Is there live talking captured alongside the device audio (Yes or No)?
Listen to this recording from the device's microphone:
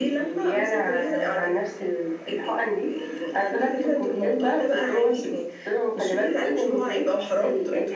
No